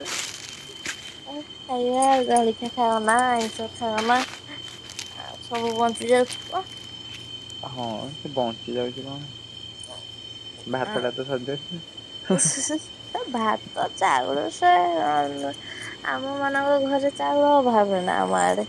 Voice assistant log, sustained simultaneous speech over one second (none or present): none